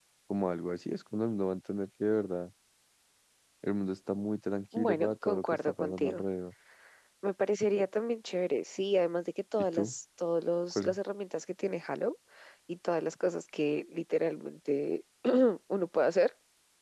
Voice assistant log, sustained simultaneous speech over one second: present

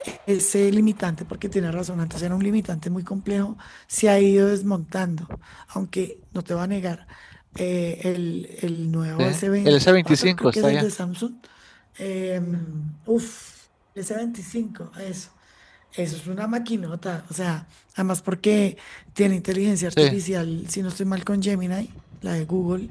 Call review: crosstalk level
present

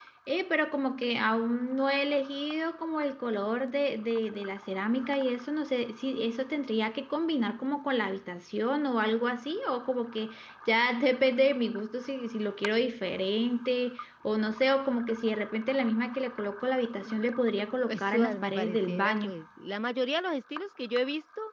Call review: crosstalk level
present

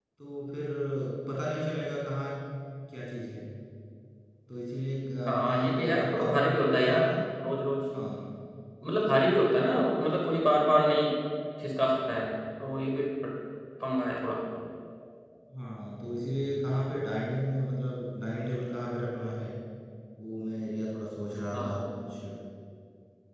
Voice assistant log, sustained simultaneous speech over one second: present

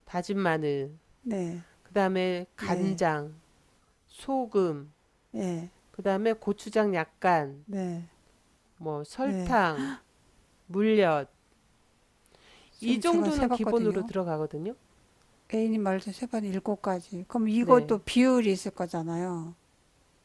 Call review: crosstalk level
present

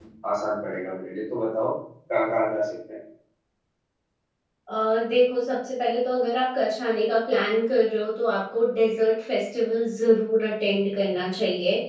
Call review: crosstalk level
none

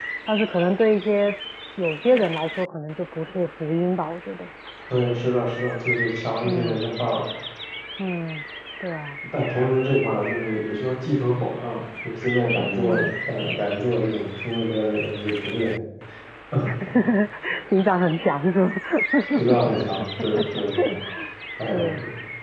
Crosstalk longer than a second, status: none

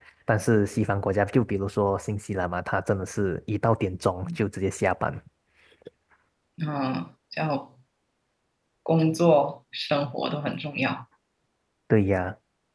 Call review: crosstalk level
none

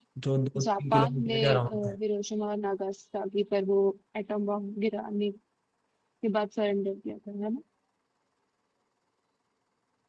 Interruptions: present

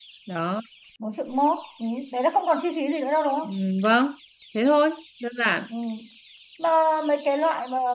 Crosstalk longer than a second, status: none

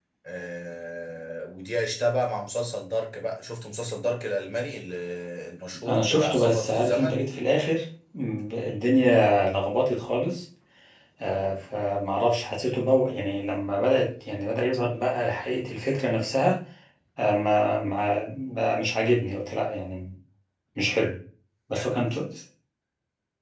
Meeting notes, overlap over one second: present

